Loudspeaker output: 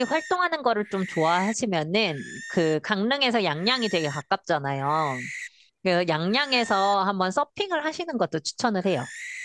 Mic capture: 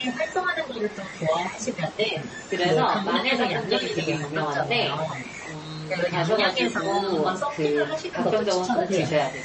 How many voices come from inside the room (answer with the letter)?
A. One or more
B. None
A